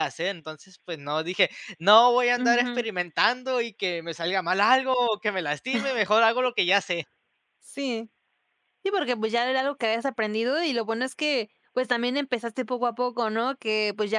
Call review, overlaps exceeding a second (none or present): none